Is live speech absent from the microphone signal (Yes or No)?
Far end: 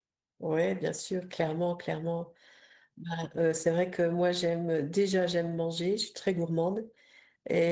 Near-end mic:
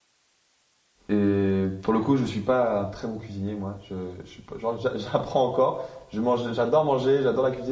No